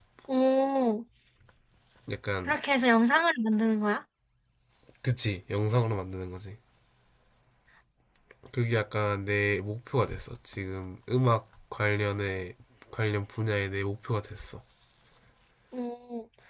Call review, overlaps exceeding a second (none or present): none